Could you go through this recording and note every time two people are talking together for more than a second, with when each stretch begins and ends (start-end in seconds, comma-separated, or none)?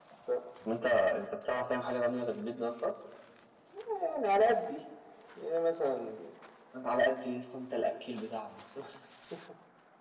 none